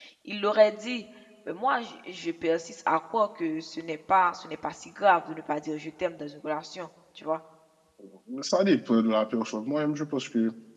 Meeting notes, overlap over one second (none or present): none